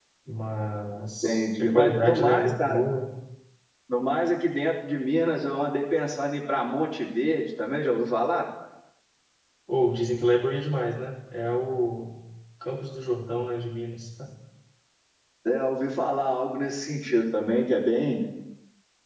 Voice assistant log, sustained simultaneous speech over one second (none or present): present